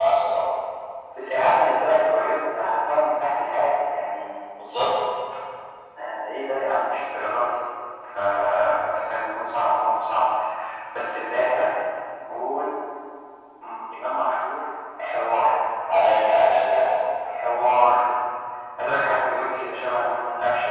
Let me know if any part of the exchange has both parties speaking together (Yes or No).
No